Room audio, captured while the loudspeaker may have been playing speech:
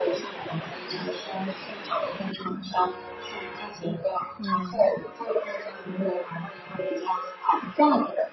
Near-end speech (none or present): present